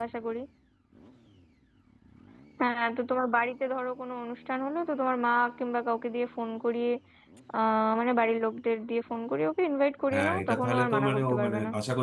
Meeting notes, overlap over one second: present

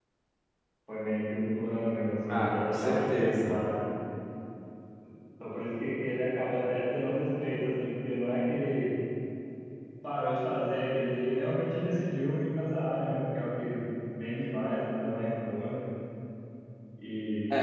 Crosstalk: present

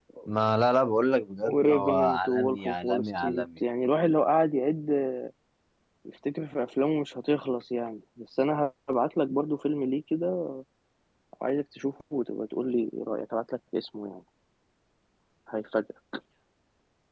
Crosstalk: present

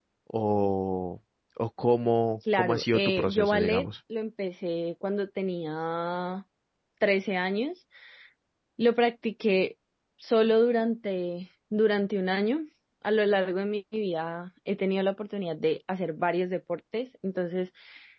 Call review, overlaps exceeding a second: present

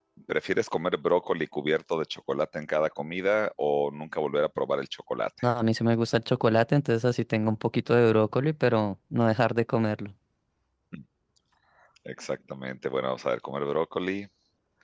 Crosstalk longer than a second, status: none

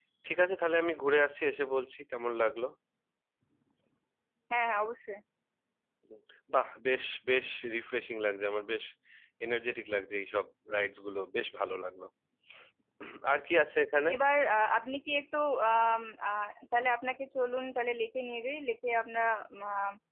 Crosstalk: none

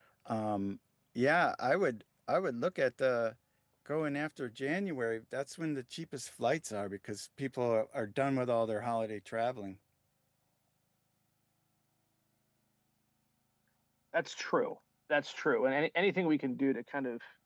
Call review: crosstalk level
none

